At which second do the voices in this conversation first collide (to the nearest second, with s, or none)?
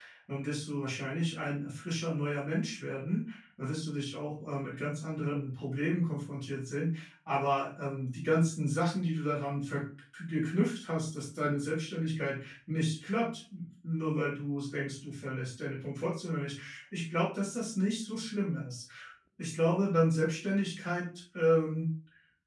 none